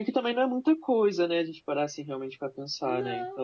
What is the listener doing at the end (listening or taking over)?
taking over